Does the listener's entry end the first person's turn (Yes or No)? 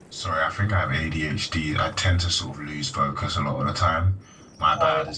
No